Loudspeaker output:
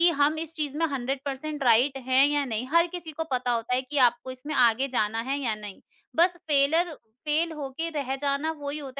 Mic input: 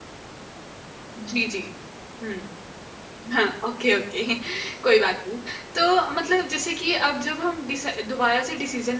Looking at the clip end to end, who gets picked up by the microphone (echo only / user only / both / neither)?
user only